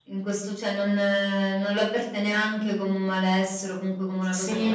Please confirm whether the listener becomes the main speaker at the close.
Yes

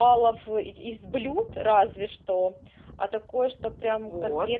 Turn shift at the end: Yes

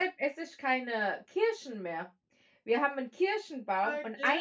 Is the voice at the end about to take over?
No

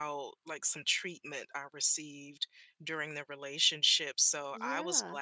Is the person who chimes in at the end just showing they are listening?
Yes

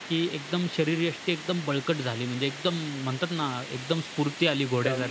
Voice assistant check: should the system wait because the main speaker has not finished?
No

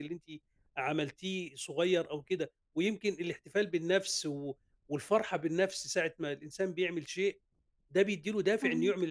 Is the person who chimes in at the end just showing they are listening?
Yes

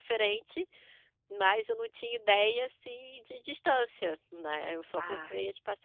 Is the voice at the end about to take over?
No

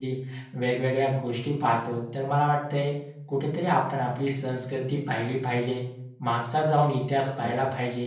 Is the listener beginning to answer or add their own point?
No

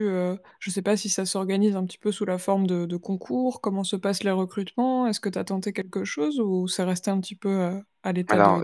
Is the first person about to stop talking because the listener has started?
Yes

